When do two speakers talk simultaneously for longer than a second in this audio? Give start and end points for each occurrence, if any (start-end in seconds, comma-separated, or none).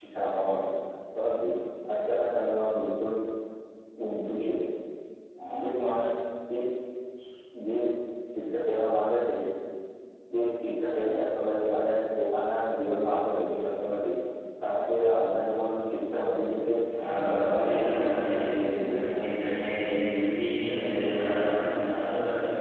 17.2-18.9